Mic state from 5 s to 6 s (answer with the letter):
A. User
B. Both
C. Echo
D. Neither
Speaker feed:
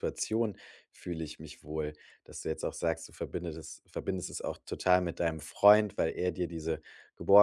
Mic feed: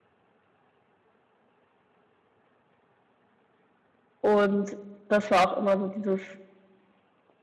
A